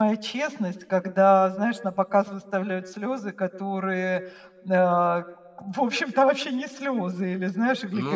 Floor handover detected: No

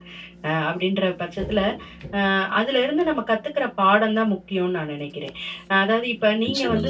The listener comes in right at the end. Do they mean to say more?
No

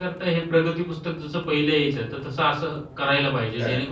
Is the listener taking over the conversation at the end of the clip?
No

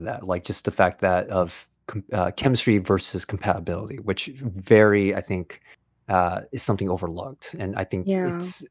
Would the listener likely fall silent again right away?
Yes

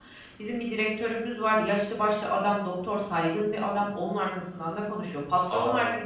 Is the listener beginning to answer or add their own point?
No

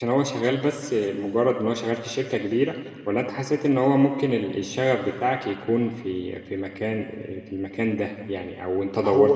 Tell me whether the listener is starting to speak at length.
Yes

